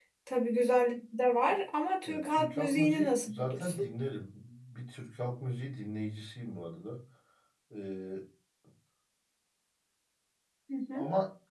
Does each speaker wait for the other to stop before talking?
No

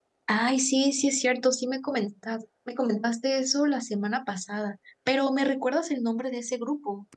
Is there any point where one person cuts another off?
No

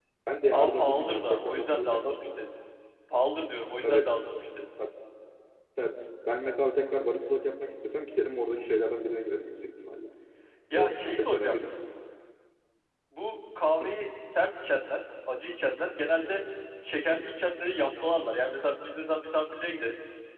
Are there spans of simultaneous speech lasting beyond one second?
Yes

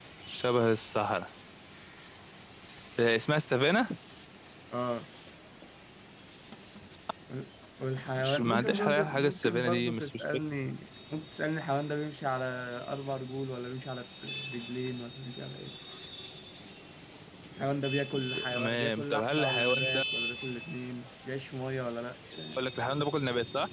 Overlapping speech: Yes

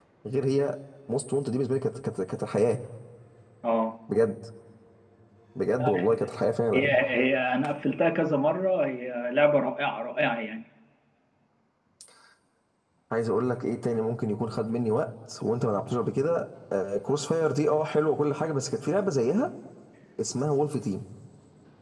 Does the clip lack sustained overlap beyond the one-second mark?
Yes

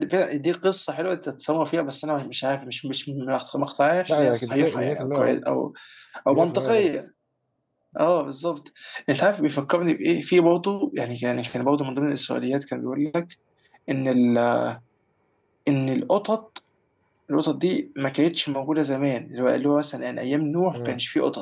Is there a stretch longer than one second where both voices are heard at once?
Yes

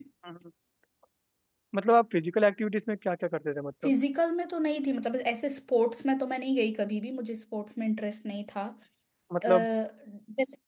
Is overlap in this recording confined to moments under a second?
Yes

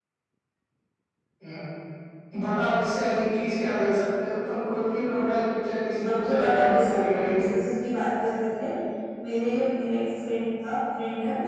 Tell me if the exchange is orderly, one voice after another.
No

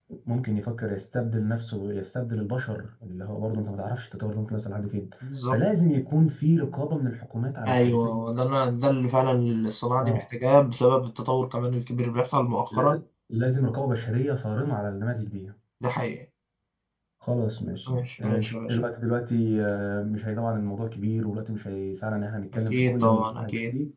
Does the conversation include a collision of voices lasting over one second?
Yes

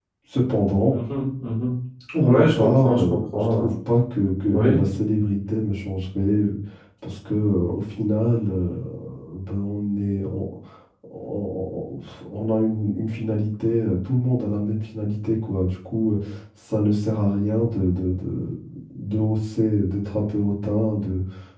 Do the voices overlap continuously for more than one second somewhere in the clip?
Yes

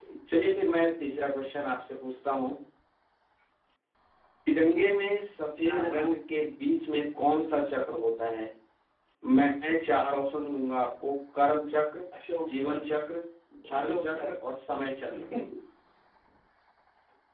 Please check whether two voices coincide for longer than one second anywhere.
No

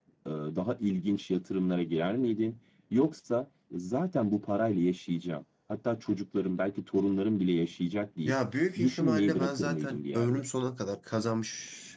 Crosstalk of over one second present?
Yes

